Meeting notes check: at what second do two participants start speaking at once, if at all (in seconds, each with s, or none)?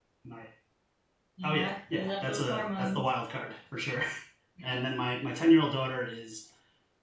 1.4 s